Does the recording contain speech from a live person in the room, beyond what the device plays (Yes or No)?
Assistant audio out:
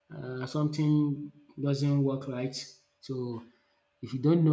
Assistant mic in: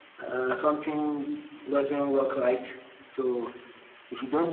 No